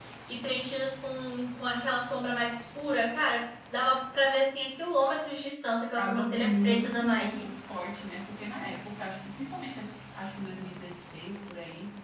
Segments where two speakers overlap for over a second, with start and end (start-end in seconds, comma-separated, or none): 6.0-7.5